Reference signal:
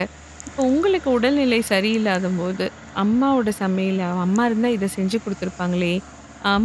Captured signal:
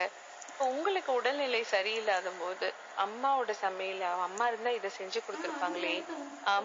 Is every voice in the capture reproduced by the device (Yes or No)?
No